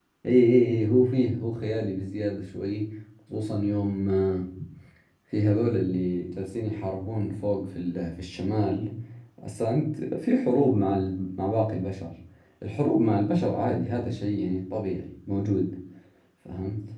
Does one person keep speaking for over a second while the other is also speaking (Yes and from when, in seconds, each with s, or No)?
No